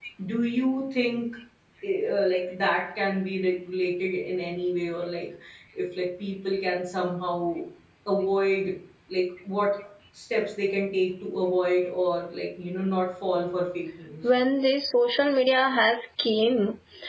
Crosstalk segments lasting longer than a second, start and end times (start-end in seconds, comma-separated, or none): none